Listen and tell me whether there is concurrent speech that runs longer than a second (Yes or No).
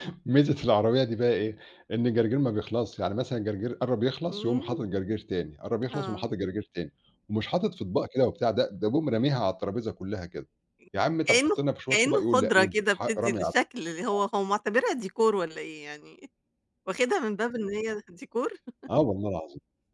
Yes